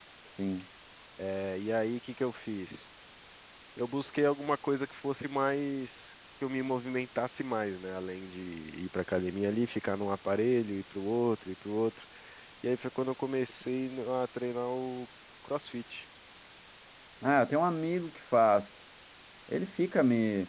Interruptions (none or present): none